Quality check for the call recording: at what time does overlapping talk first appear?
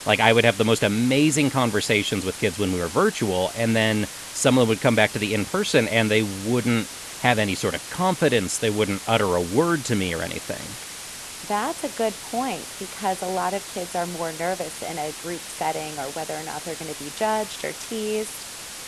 none

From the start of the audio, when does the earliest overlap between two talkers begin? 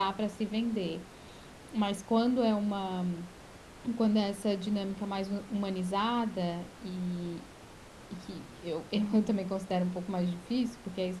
none

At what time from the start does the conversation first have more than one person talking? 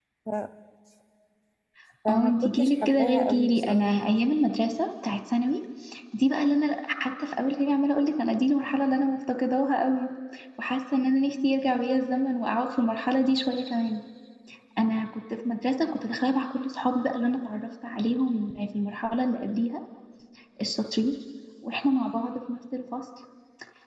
2 s

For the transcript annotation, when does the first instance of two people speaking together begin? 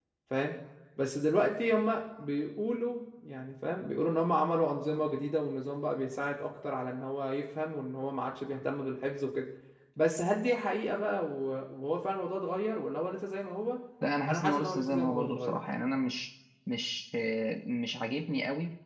14 s

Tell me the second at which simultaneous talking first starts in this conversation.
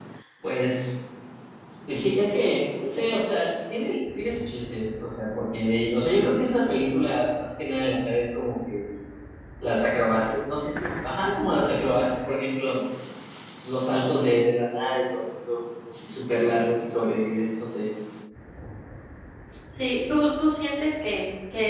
none

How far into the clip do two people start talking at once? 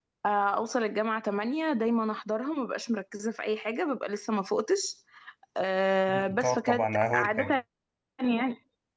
6 s

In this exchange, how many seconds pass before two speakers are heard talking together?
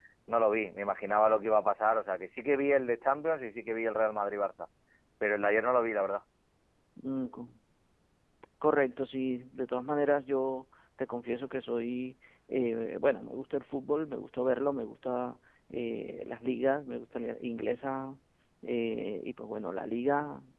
none

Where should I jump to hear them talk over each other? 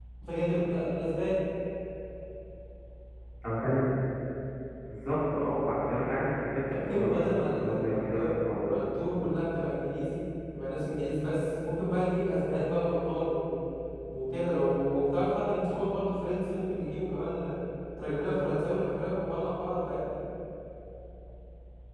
7 s

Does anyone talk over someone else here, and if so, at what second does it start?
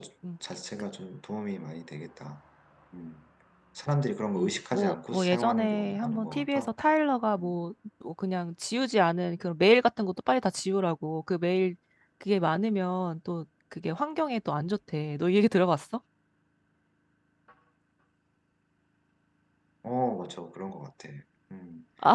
4 s

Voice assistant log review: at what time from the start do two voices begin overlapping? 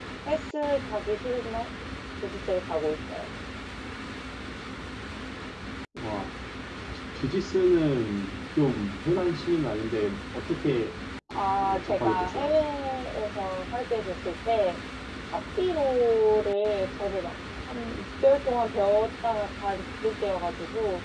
11 s

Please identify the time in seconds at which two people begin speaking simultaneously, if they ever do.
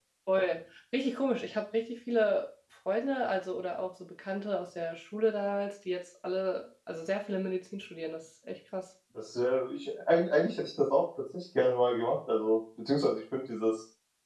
none

